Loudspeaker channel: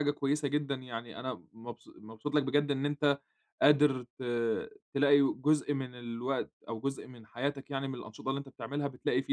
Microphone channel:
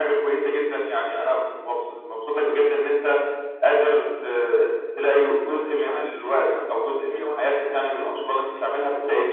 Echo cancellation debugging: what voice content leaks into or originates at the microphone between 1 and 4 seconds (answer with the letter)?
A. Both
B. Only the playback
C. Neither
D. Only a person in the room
B